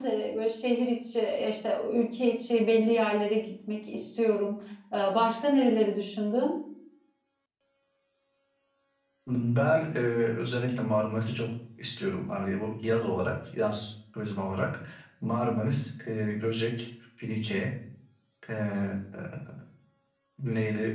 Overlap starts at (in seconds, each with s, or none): none